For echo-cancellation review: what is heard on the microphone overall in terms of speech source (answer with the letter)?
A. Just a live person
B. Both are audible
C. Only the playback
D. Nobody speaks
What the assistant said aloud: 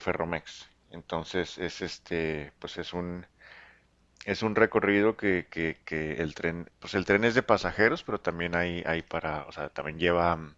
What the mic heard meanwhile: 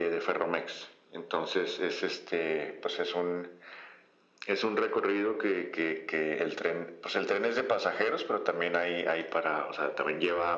C